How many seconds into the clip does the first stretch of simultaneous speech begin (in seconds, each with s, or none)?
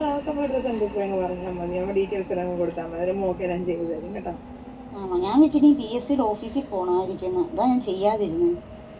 none